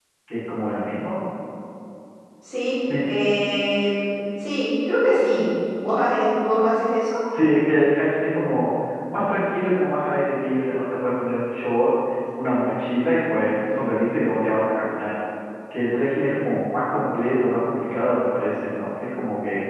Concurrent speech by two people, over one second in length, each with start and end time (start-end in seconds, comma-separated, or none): none